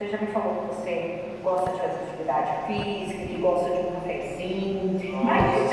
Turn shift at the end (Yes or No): No